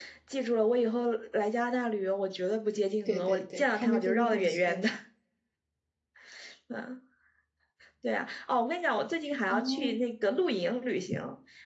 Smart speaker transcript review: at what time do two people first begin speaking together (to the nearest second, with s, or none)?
3 s